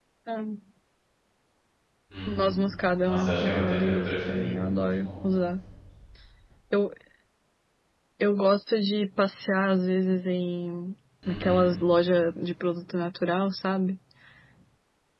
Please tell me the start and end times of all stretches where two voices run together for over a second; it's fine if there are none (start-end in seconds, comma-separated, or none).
3.0-5.1